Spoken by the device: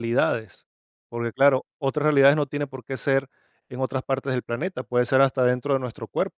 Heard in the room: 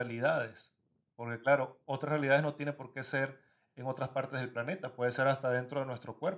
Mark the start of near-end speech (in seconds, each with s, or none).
none